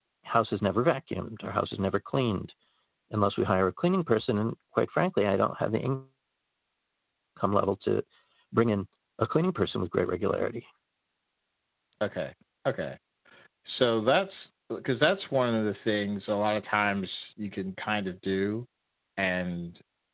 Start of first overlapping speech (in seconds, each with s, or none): none